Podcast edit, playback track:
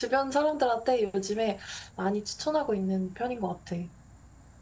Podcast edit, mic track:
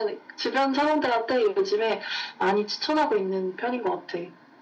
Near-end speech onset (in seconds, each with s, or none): none